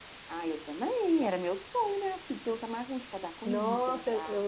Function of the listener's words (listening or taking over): taking over